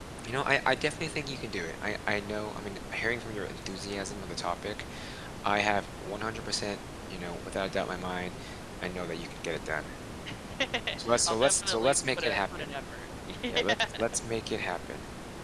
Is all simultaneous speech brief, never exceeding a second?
No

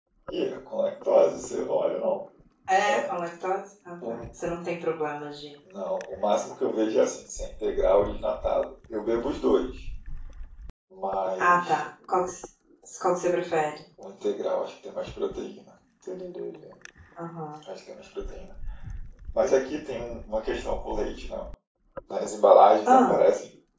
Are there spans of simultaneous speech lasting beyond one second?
No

